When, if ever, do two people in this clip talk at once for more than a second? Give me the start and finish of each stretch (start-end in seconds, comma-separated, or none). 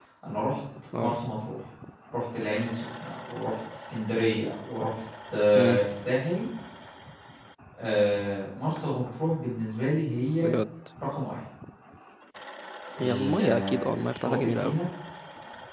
13.0-14.8